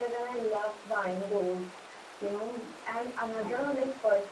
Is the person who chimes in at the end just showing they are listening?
Yes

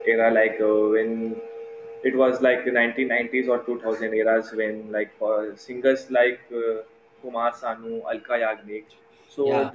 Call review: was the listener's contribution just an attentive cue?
Yes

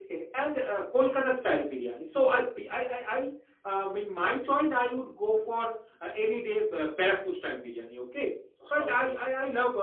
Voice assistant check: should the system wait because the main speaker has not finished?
Yes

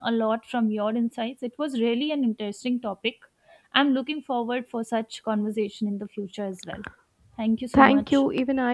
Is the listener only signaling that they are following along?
No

